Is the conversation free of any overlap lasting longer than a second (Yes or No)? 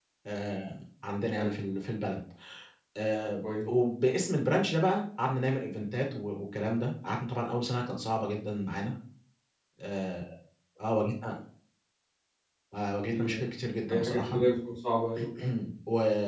Yes